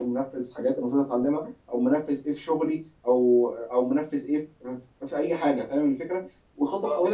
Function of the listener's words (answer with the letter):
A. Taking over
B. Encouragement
B